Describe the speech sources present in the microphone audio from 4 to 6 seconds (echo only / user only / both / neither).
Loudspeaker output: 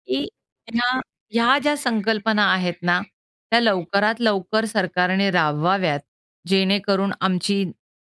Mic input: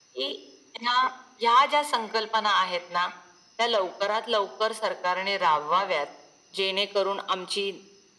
echo only